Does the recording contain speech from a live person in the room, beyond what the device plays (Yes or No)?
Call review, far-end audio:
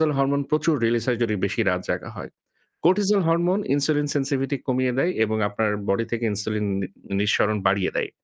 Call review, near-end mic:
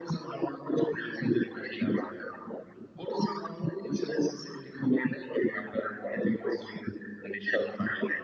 No